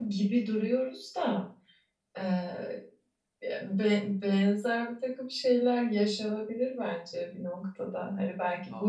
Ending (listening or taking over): listening